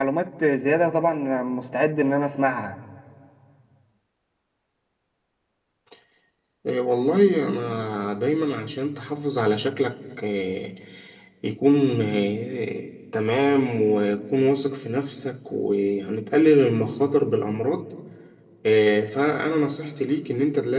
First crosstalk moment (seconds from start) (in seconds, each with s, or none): none